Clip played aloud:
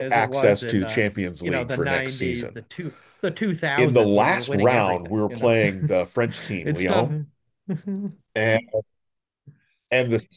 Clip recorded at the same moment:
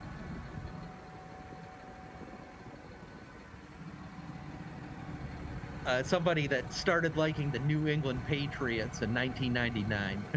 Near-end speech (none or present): present